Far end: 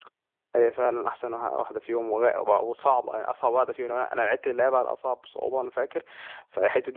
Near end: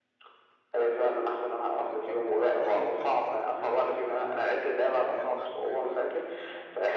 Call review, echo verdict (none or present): present